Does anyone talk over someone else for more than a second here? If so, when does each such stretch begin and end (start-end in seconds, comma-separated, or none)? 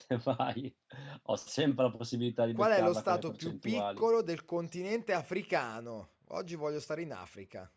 2.5-4.0